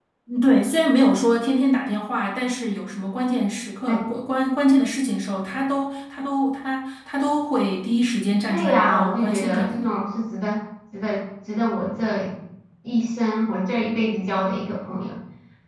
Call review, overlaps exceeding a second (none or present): present